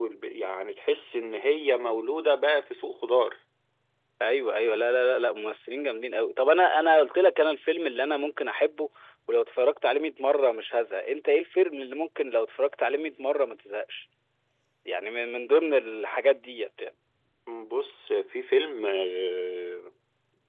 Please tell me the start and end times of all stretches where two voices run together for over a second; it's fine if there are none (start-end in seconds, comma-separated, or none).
none